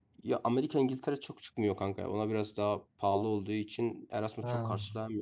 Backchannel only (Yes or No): Yes